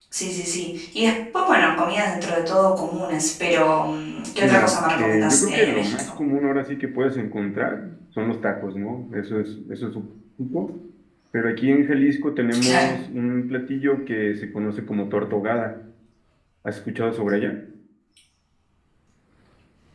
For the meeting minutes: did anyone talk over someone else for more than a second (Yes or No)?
Yes